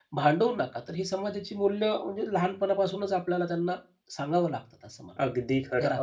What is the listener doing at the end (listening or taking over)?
taking over